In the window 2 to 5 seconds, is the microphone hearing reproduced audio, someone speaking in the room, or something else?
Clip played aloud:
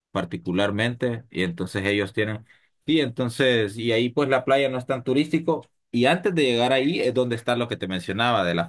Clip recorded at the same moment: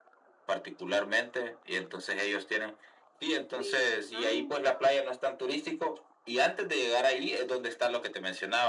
both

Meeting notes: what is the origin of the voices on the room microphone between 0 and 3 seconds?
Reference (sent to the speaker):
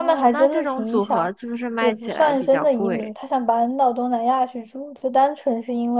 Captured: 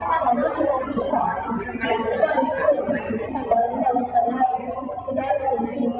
echo only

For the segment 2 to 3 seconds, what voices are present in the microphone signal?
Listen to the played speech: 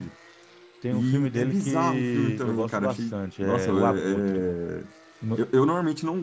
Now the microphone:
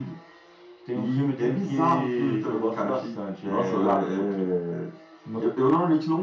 echo only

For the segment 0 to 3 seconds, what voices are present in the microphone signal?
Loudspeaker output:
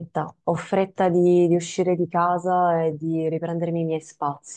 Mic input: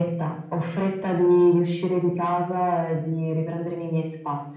echo only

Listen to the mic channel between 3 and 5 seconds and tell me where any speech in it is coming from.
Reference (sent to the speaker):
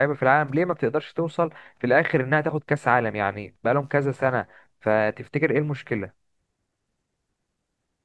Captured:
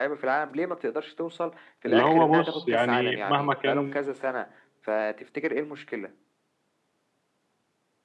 both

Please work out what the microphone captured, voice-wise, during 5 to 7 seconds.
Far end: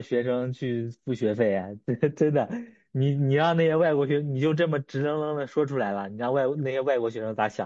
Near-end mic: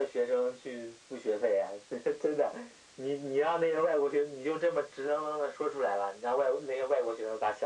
echo only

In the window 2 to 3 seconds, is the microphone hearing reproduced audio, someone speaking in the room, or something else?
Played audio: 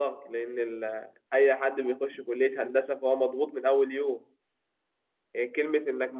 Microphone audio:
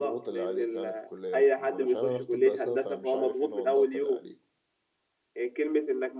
both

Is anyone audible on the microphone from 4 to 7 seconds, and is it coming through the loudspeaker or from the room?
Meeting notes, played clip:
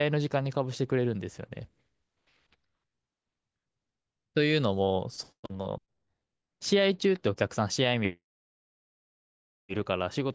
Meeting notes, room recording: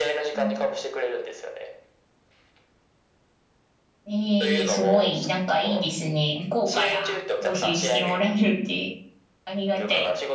both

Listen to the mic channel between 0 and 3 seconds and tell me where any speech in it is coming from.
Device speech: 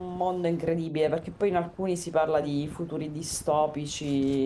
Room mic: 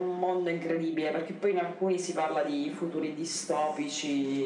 echo only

